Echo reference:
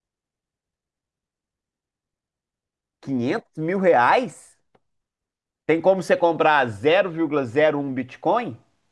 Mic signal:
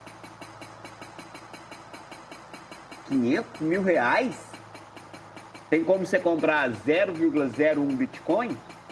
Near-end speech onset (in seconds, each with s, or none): none